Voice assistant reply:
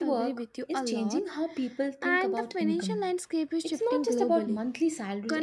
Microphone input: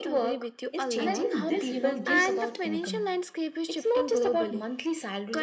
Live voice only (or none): And I think this, you know, gives